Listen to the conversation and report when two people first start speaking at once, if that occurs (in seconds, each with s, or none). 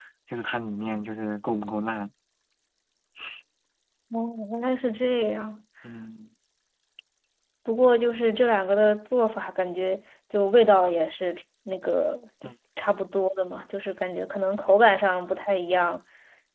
none